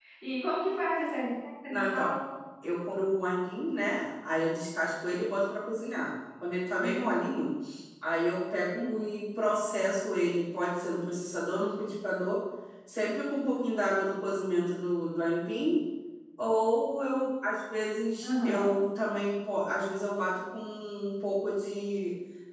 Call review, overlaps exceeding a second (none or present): none